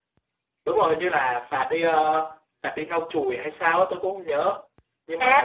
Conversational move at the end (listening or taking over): taking over